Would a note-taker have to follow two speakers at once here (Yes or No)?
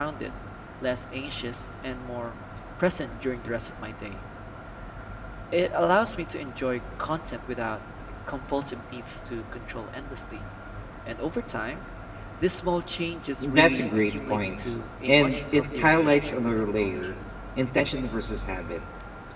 Yes